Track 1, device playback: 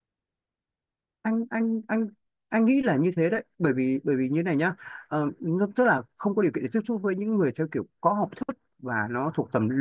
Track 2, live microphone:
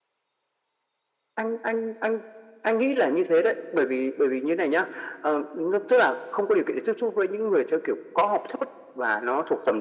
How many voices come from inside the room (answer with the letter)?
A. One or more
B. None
B